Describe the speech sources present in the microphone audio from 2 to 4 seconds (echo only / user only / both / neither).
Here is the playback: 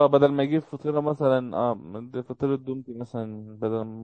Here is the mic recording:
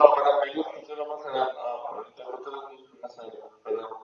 echo only